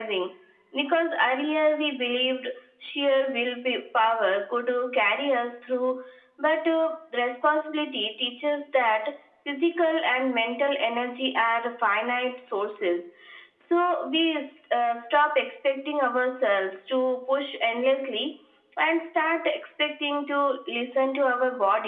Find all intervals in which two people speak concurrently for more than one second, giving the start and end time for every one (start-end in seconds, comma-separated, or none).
none